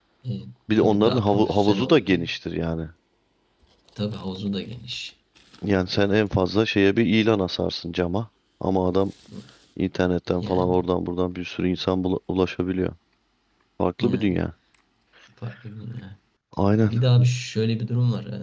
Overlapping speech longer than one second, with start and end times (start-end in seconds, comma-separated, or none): 0.8-2.2